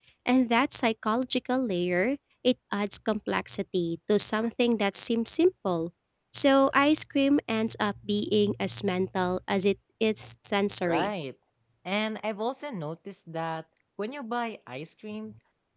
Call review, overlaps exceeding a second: none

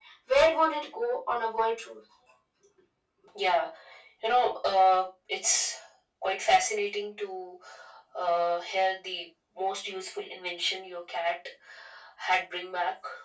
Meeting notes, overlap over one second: none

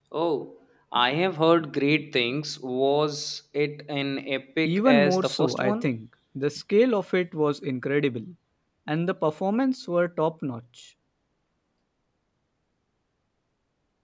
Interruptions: present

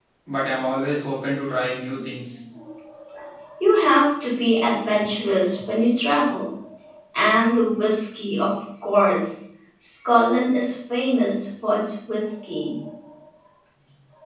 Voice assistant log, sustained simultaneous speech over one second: none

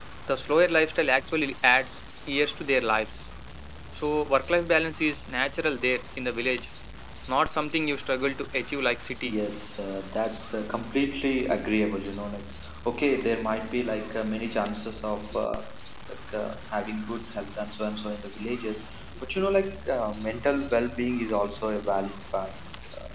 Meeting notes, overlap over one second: none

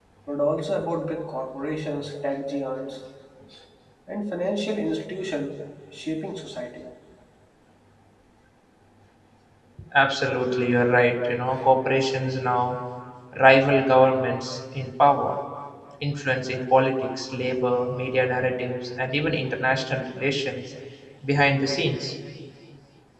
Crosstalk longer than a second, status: none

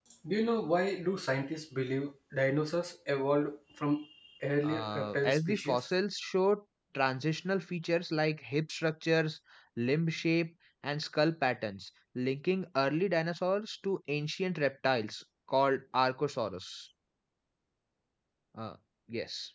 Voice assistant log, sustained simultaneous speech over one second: present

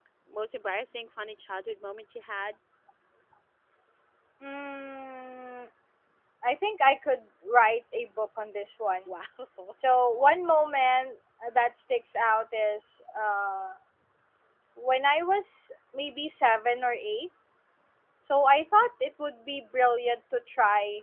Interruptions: none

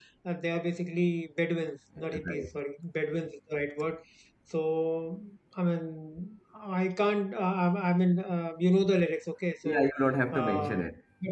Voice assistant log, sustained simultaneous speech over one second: none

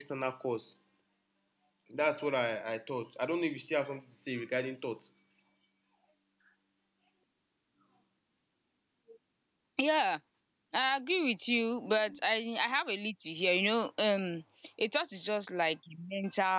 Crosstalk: none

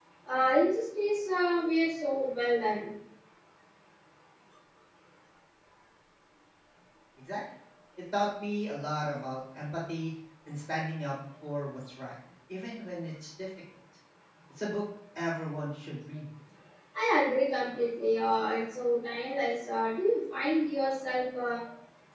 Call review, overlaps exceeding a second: none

